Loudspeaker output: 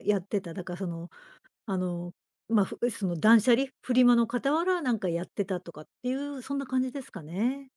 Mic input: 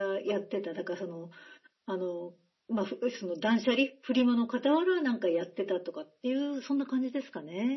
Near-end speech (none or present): none